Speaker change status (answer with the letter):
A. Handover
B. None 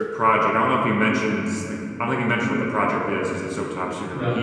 B